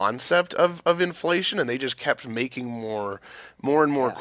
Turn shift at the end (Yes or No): No